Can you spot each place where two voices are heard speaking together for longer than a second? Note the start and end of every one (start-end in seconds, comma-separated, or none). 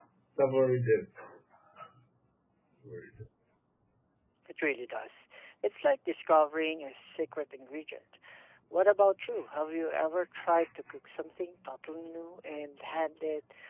none